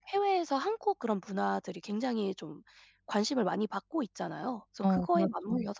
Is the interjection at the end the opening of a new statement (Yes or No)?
No